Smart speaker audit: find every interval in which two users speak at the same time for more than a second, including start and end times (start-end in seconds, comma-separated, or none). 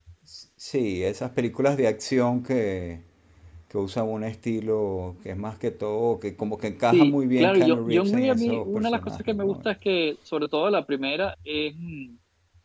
6.9-9.6